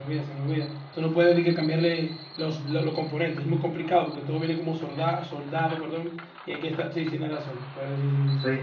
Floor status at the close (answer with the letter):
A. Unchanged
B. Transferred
B